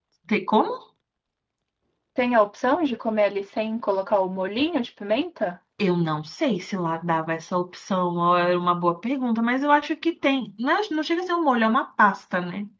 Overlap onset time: none

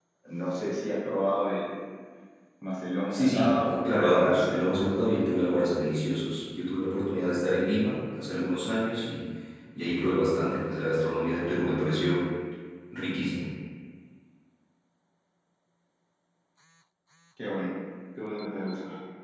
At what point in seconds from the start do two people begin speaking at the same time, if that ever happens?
3.1 s

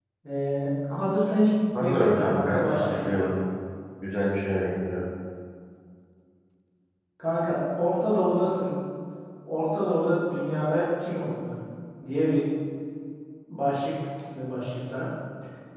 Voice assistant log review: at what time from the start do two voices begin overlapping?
1.7 s

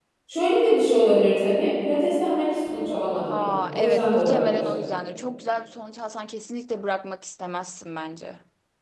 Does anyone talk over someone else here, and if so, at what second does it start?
3.3 s

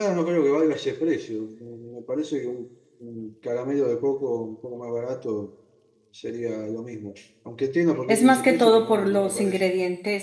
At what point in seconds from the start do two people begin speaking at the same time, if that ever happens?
8.0 s

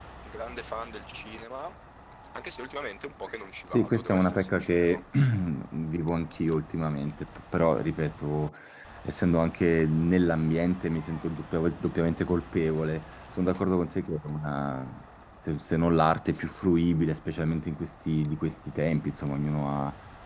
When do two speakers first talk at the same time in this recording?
3.7 s

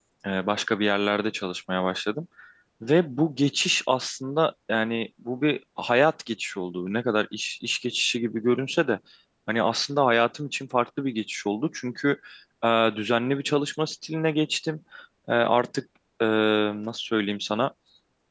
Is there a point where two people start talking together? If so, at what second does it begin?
none

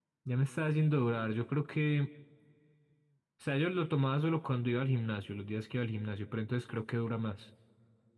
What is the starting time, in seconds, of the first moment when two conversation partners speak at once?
none

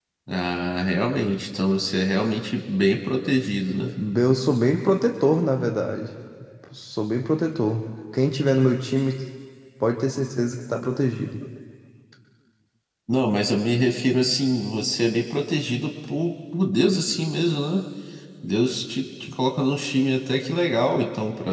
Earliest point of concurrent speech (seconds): none

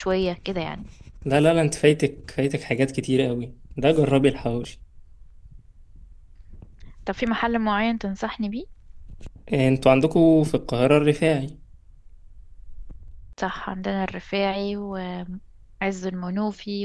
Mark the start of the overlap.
none

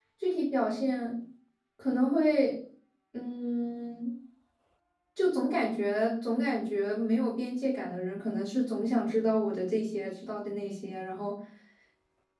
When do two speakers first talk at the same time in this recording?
none

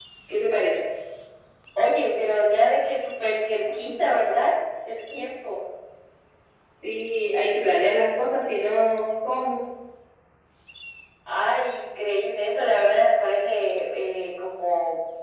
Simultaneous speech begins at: none

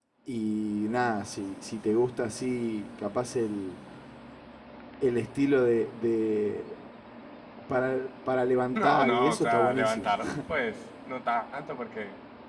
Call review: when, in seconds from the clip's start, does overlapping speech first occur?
8.8 s

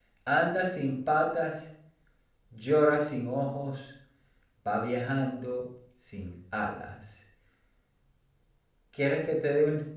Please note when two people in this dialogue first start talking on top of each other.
none

